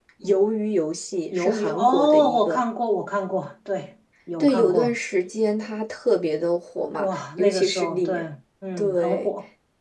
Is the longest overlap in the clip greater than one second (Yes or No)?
Yes